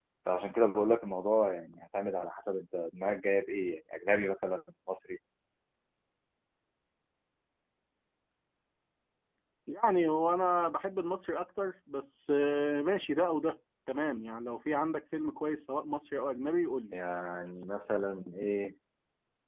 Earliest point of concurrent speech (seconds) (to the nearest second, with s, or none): none